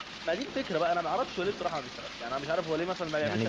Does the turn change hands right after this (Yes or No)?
Yes